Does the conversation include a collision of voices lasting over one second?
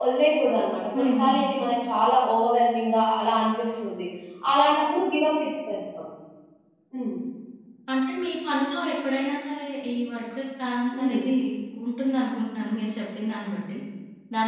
No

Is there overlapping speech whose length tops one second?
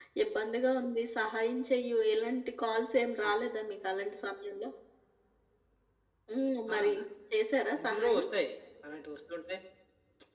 No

